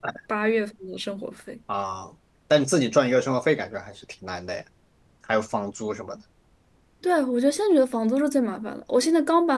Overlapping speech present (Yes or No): No